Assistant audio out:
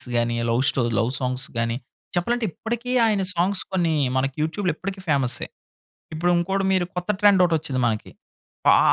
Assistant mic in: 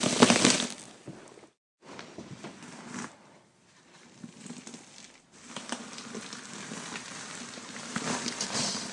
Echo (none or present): none